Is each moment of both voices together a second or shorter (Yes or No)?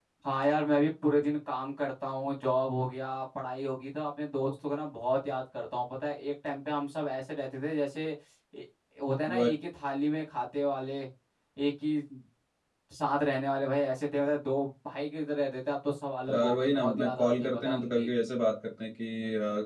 No